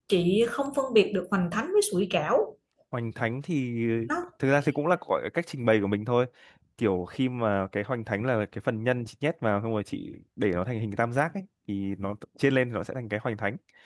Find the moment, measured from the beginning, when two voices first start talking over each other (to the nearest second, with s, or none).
none